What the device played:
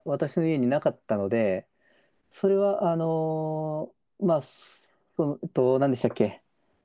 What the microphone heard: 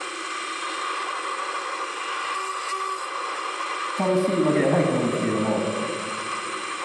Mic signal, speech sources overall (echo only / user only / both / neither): user only